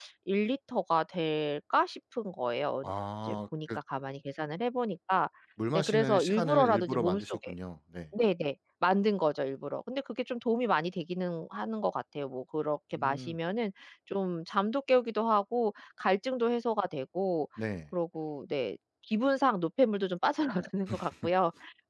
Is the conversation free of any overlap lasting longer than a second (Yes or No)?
No